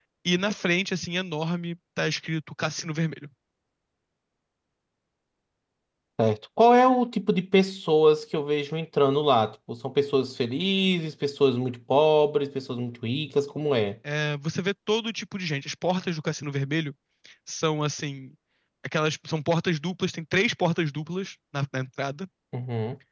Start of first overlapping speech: none

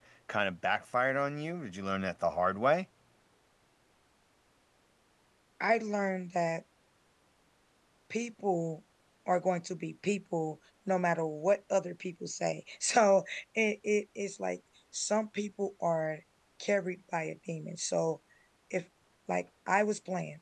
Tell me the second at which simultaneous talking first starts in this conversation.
none

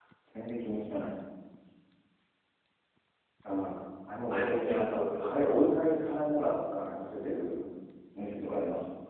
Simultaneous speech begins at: 4.3 s

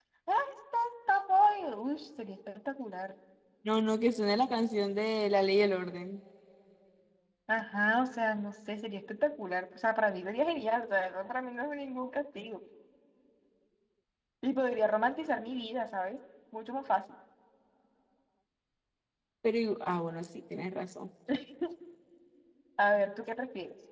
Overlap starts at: none

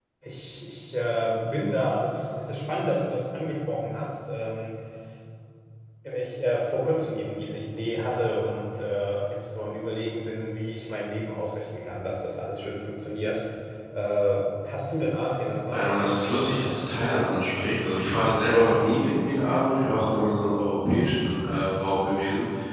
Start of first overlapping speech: 15.7 s

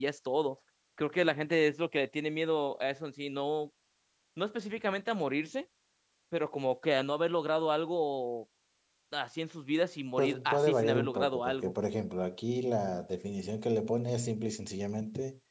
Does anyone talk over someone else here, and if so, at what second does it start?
10.2 s

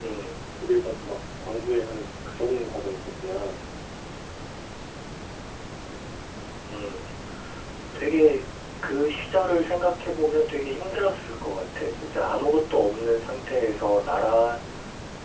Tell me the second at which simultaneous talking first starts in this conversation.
none

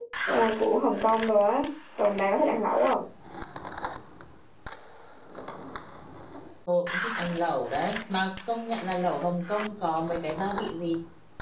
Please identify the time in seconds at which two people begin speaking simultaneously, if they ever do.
none

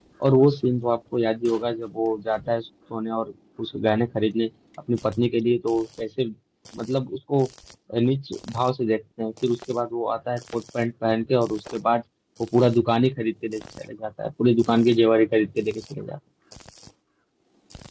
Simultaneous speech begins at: none

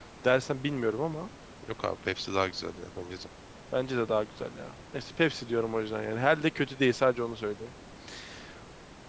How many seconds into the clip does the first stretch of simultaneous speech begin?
none

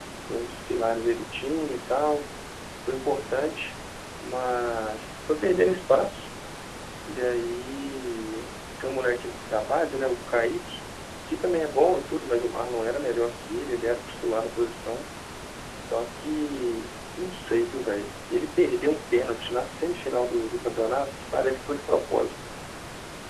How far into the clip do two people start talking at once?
none

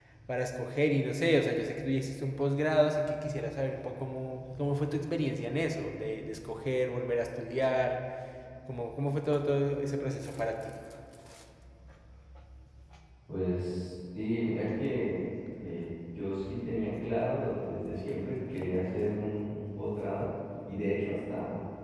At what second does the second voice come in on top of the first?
none

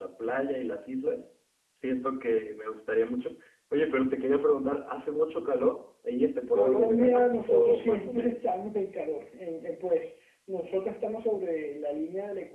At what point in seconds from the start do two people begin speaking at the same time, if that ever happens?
6.5 s

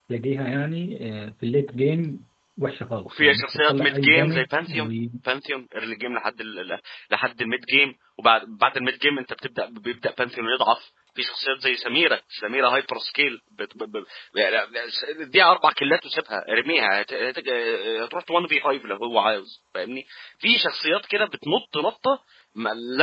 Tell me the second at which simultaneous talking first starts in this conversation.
3.0 s

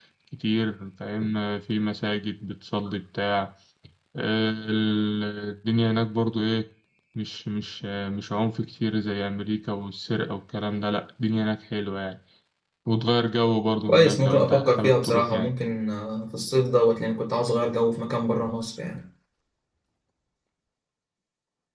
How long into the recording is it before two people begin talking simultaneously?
13.9 s

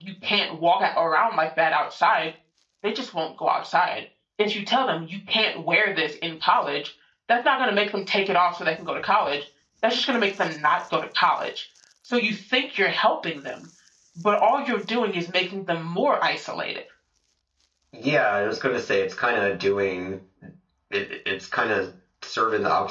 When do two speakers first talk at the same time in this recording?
none

